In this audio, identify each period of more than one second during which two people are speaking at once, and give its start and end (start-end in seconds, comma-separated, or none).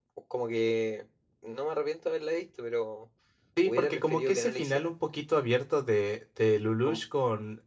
3.6-4.9